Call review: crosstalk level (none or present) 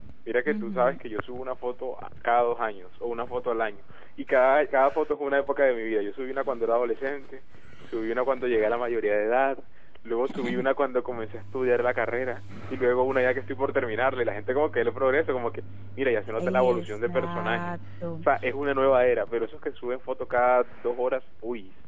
present